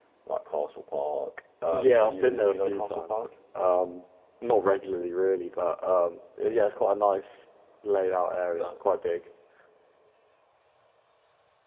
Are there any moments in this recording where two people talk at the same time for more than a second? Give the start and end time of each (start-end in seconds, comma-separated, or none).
1.7-3.1